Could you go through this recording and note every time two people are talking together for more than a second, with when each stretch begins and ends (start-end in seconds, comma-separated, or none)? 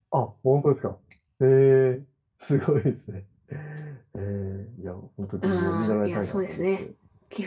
5.4-6.8